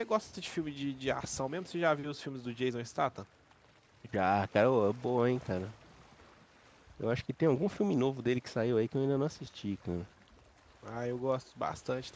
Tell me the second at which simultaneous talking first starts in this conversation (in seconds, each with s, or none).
none